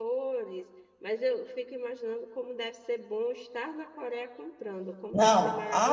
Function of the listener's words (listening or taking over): taking over